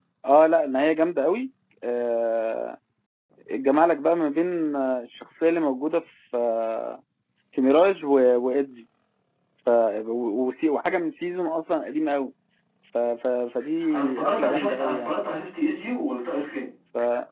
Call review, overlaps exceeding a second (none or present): present